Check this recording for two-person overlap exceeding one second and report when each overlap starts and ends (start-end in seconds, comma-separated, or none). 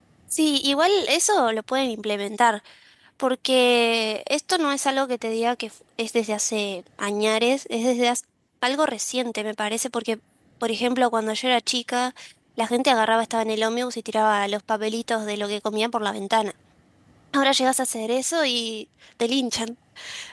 none